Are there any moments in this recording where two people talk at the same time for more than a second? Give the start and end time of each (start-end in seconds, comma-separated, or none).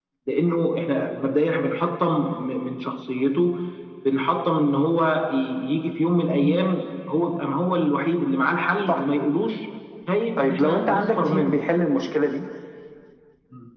10.4-11.6